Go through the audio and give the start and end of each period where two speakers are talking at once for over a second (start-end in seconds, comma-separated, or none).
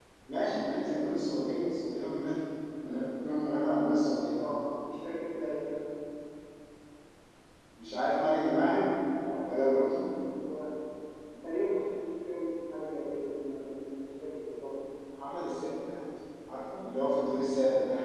none